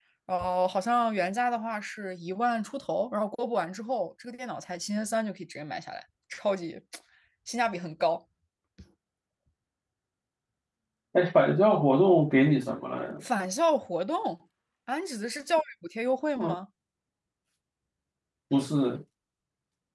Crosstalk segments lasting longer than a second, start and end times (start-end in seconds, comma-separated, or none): none